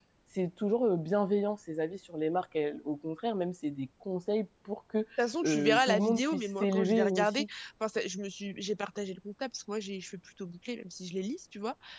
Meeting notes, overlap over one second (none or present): present